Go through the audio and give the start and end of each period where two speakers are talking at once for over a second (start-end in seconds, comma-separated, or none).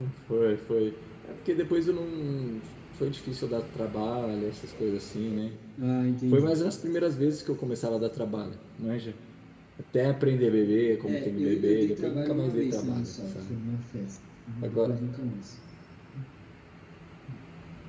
11.0-13.6